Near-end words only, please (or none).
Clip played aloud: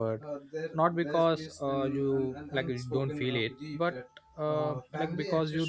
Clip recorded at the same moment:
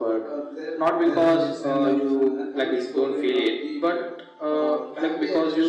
and you end up